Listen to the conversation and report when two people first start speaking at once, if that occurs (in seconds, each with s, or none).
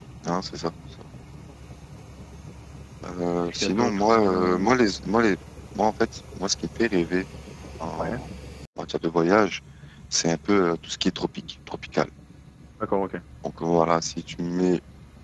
3.4 s